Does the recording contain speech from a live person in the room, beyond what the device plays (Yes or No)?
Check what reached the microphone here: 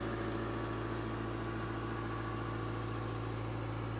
No